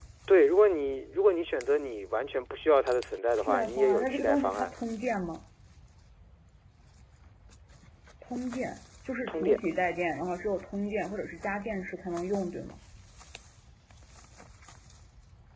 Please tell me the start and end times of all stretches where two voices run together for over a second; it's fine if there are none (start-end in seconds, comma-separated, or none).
3.4-4.7